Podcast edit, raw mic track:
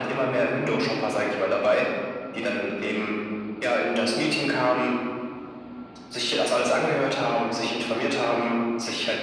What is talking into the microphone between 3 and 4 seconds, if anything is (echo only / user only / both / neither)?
echo only